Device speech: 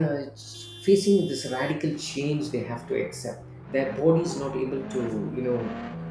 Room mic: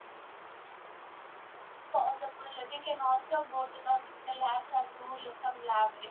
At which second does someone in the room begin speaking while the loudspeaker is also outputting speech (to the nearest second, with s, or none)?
2 s